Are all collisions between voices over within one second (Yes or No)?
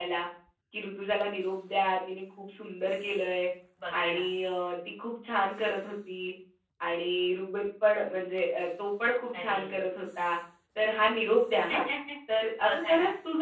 Yes